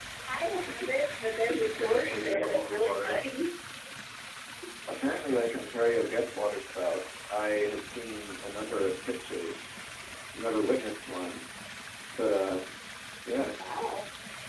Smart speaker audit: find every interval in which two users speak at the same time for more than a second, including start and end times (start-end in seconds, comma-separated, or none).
1.6-3.2